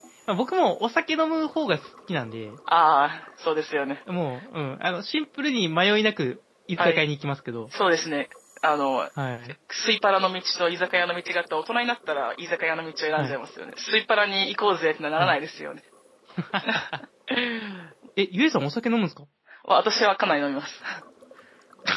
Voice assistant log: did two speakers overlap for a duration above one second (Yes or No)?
No